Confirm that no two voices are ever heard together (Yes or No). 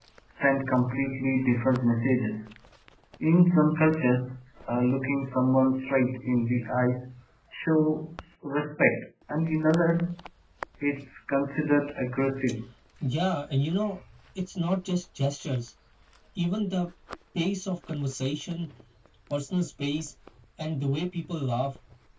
Yes